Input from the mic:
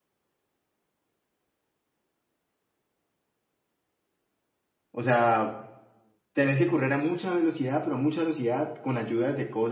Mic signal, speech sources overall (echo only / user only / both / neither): user only